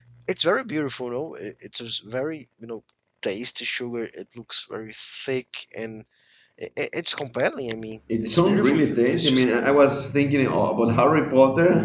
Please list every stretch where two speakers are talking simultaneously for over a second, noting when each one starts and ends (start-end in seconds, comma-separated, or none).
8.2-9.4